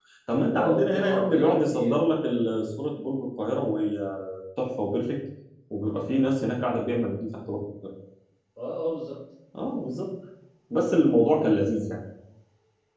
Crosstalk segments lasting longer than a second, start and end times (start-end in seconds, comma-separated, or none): 0.6-2.1